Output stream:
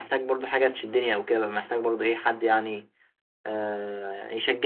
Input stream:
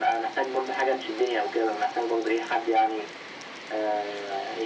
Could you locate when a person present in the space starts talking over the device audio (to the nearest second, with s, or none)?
none